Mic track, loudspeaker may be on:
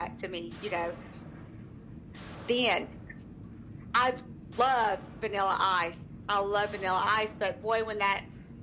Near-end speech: none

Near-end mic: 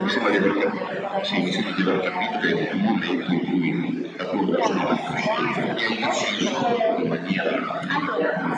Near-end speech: present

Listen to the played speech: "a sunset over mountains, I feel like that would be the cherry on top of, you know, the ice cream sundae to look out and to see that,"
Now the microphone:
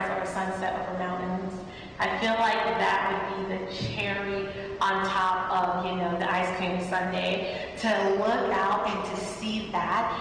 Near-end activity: none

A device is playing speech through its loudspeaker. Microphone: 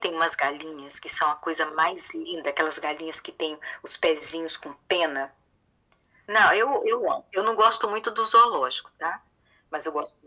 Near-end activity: none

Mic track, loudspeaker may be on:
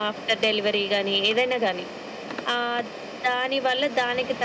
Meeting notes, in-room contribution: none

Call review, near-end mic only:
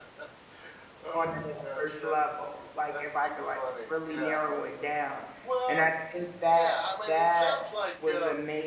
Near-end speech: present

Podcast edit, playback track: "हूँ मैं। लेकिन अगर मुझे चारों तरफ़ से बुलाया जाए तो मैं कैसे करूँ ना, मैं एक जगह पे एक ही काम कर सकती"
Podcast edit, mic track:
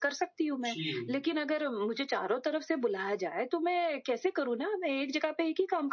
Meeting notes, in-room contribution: present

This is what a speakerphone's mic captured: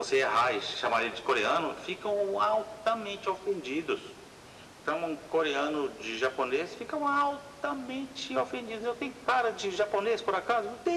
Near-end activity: none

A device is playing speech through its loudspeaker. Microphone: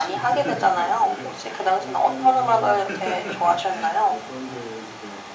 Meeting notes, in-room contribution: present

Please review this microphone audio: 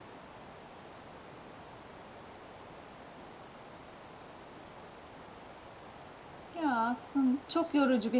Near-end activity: present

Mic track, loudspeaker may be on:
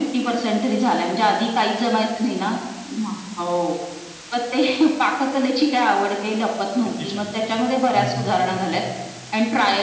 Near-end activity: present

